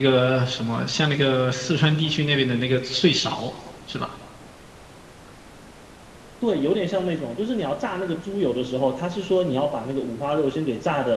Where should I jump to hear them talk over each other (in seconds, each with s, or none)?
none